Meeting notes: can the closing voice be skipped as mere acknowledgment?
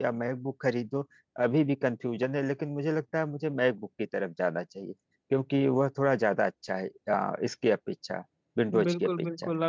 No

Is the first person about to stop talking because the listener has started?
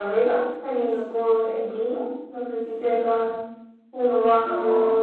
No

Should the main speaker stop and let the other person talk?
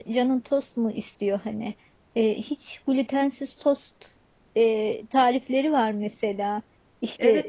Yes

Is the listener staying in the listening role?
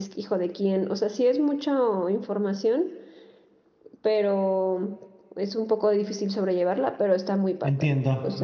No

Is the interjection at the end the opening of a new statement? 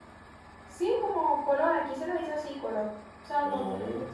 No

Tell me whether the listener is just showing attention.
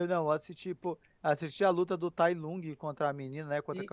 No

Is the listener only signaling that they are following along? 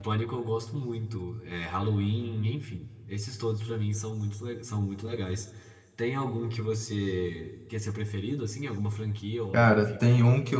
No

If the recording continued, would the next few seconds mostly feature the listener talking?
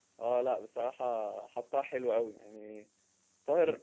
No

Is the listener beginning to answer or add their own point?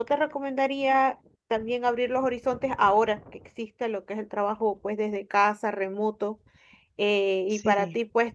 No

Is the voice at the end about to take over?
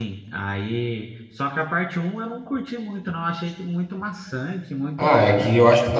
Yes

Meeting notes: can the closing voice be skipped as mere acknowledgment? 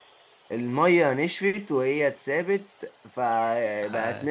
Yes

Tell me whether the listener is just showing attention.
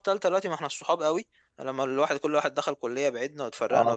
No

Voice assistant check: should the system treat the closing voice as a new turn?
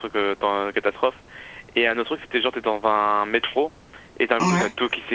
No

